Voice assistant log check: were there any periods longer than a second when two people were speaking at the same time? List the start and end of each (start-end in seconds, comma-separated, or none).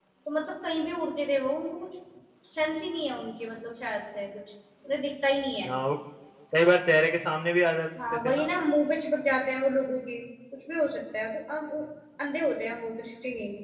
none